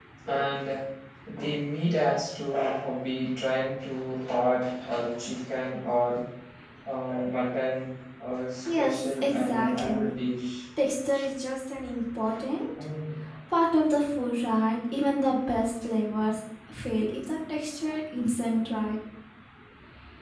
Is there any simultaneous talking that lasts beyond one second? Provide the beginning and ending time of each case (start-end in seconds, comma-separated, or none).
8.7-10.1